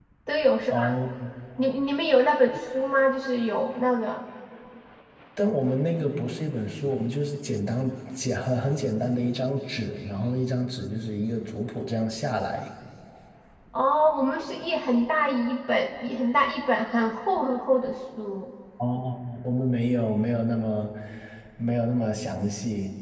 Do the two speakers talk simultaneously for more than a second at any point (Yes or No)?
No